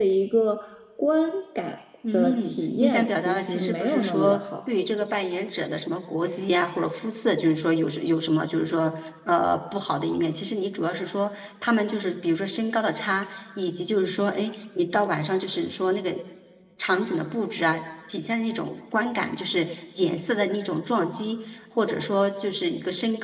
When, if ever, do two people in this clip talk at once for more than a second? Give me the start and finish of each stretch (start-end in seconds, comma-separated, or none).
2.1-4.7